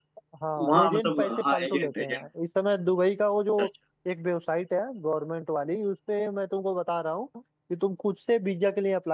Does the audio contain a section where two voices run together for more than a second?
Yes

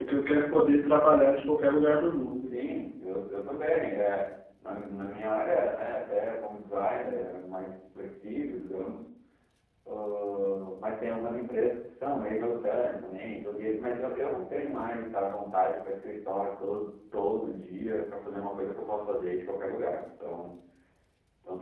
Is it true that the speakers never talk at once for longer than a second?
Yes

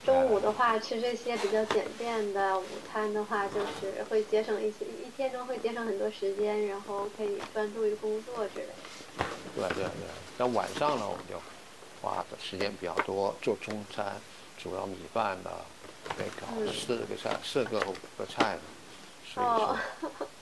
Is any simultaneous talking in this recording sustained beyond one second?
No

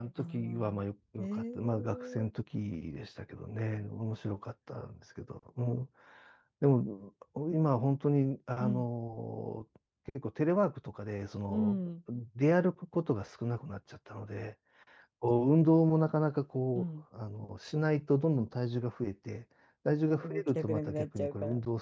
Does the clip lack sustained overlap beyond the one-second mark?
No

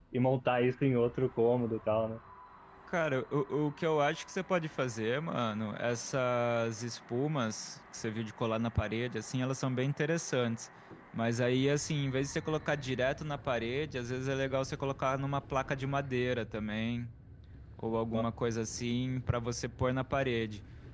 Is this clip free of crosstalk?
Yes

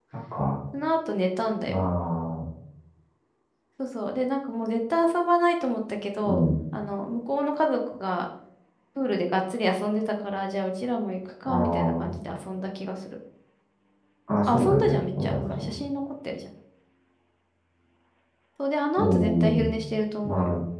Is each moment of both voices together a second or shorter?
No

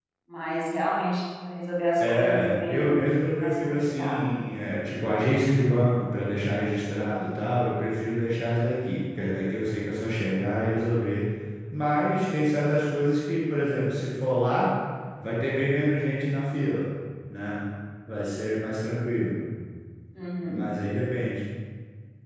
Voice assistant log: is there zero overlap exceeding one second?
No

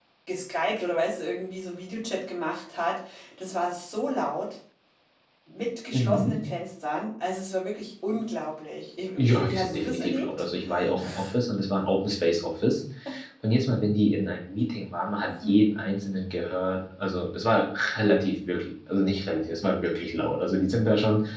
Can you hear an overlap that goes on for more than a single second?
Yes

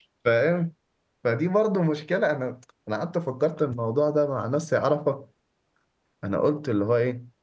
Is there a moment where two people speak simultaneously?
No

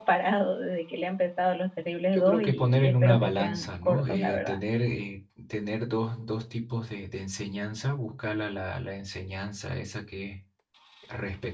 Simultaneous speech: Yes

